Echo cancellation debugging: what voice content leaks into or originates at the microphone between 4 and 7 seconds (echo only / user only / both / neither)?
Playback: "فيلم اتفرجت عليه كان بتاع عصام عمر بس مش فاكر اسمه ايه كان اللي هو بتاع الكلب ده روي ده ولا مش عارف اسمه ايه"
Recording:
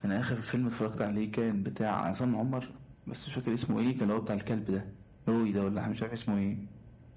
echo only